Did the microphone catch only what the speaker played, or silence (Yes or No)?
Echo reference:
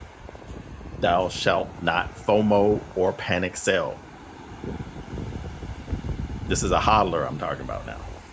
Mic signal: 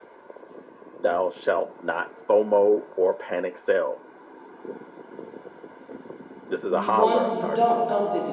No